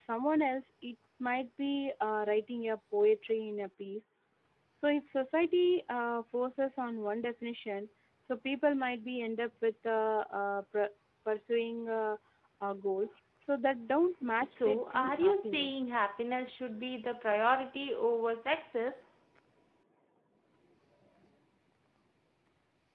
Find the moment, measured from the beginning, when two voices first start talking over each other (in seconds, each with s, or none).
14.2 s